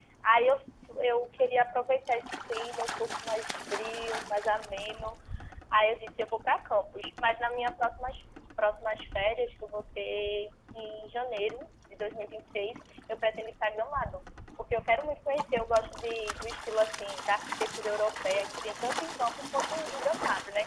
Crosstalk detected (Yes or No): No